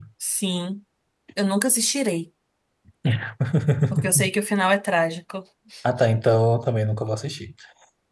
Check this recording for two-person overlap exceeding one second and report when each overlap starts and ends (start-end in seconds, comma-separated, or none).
none